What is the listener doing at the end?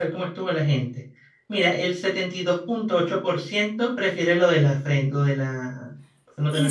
taking over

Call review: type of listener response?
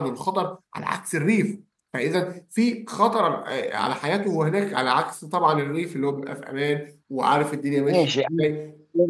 taking over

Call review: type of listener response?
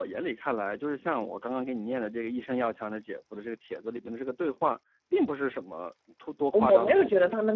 taking over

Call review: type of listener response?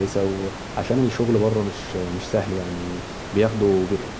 listening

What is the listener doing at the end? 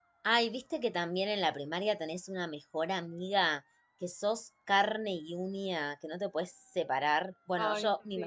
listening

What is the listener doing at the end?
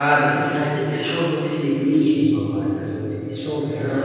listening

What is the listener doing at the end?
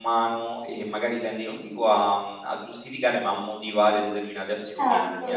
taking over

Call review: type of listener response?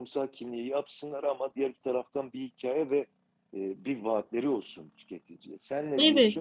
taking over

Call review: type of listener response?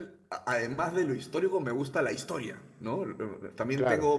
listening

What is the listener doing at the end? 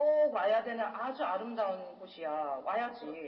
taking over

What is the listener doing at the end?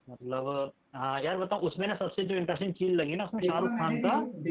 taking over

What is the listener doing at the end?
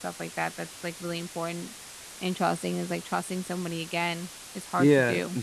taking over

